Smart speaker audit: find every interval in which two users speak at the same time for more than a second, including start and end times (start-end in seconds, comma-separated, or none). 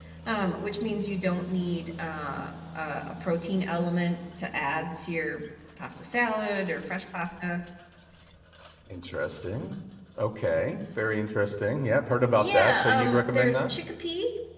12.4-13.7